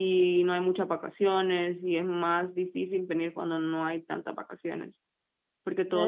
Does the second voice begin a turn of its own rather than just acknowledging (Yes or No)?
Yes